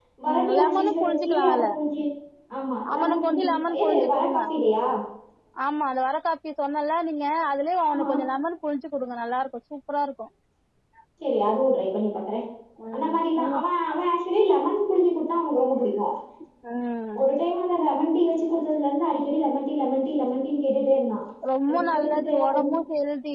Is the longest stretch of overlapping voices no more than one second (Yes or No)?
No